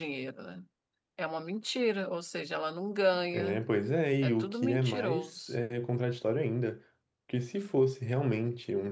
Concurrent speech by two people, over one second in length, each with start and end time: 4.2-5.5

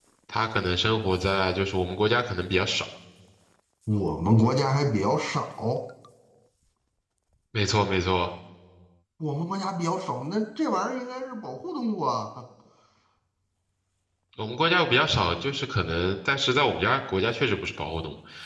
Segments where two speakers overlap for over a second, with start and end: none

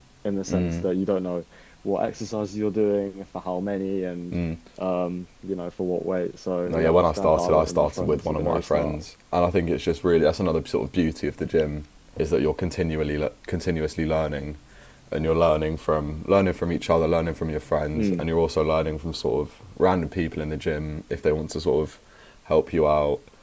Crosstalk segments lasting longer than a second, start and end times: 6.7-9.0

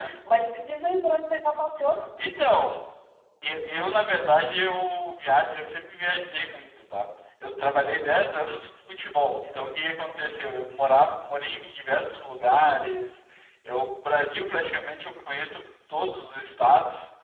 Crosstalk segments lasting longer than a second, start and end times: none

